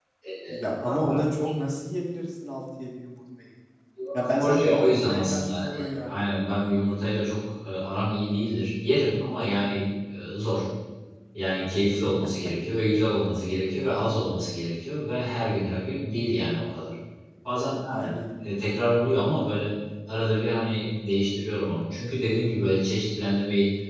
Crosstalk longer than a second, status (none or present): present